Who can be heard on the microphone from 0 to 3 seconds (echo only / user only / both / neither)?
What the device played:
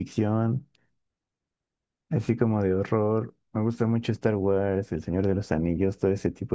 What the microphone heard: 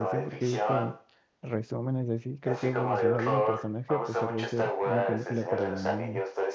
both